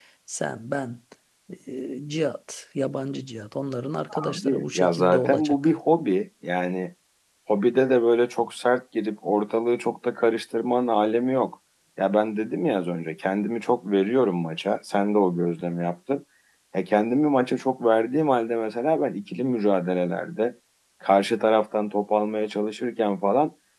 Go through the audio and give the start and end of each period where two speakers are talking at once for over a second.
4.1-5.6

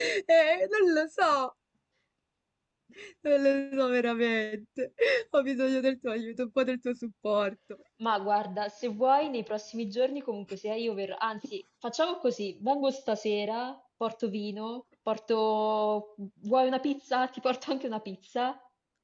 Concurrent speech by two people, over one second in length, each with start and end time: none

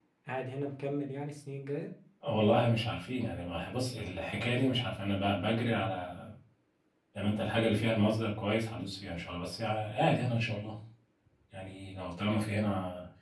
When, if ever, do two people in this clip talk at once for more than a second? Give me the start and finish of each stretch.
none

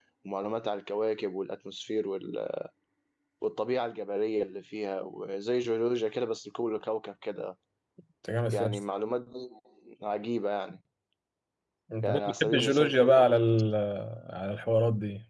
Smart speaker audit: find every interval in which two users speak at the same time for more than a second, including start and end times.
12.0-13.2

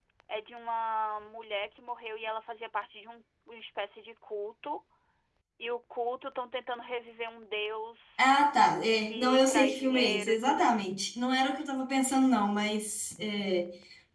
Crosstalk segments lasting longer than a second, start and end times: 9.0-11.0

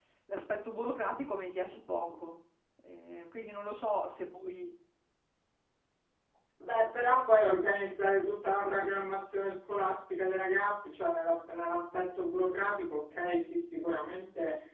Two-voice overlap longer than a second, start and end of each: none

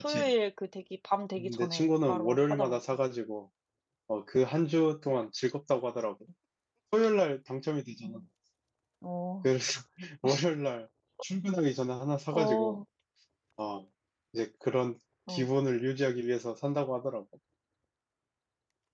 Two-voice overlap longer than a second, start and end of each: 1.6-2.8

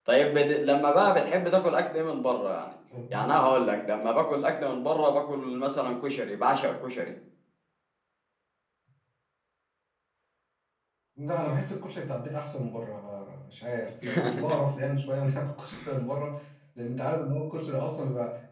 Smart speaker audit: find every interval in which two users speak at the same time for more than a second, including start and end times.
none

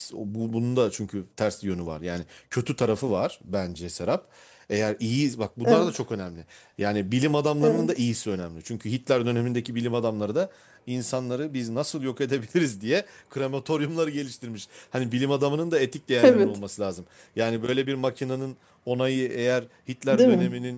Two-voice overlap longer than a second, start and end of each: none

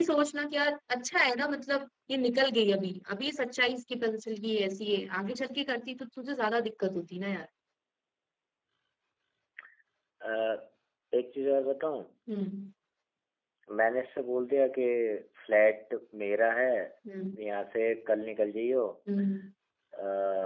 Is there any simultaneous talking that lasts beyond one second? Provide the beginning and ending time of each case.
none

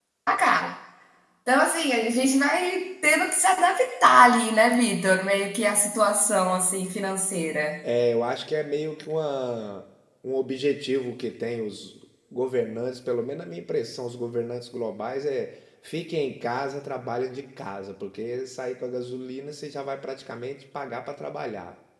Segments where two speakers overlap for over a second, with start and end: none

